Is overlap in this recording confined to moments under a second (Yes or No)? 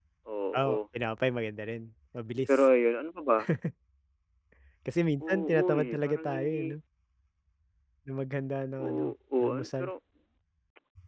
No